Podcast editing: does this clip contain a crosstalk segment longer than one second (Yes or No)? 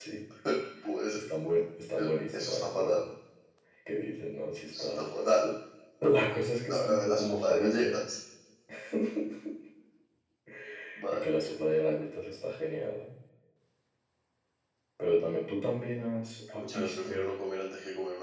Yes